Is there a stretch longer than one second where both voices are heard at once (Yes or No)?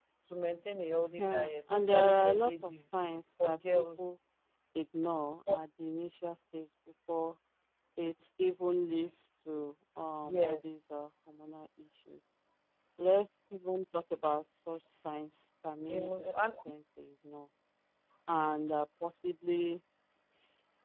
Yes